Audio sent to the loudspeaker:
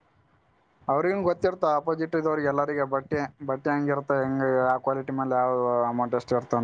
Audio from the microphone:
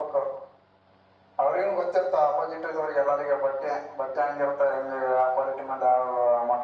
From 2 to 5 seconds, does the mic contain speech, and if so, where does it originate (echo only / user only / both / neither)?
echo only